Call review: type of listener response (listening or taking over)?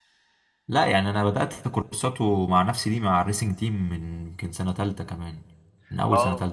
taking over